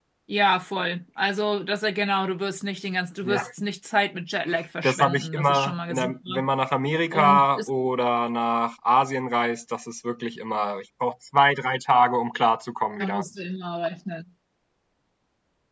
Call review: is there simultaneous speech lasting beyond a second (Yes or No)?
Yes